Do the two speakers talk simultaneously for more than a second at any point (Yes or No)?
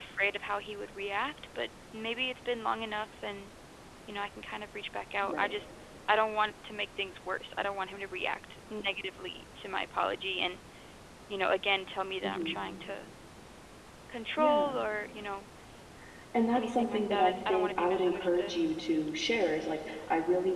Yes